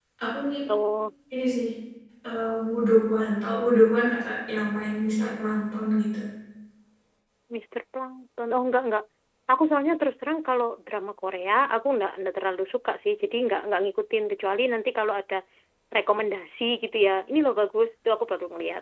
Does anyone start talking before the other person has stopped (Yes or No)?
No